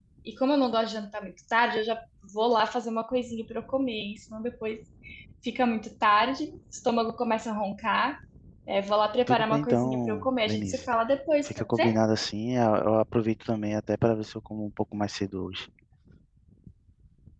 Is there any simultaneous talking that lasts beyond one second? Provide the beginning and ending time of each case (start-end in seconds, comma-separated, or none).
9.3-10.9